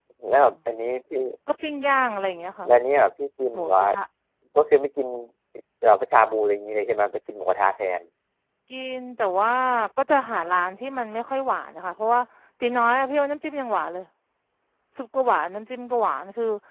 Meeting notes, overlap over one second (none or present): none